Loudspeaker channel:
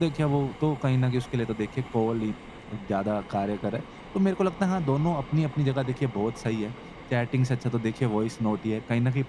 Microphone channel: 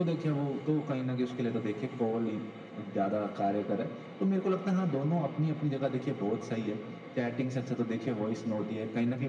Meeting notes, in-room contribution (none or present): none